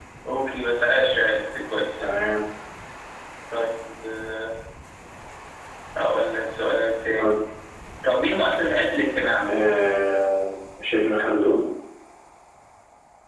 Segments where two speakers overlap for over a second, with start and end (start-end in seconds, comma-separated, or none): none